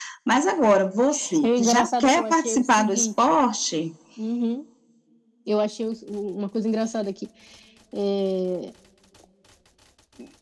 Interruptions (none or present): present